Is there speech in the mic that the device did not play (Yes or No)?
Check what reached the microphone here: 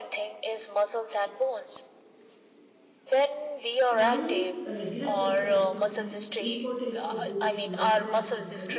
Yes